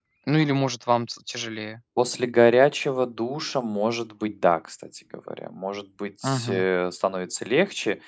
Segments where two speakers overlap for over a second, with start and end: none

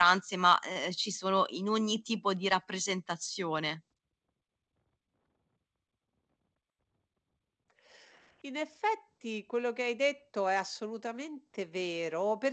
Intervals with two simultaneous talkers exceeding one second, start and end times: none

